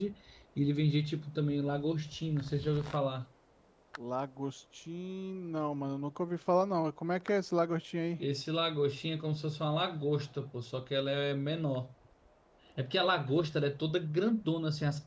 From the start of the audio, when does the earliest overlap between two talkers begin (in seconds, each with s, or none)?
none